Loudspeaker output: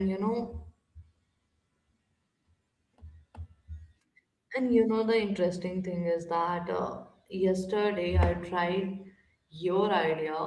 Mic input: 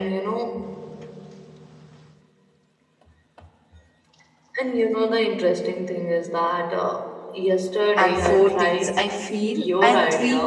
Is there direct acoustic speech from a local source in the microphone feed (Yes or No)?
Yes